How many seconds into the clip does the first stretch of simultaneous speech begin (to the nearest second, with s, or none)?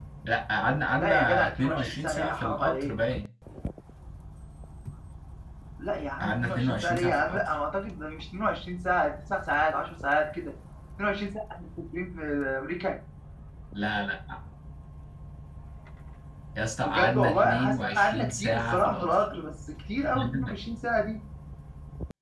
1 s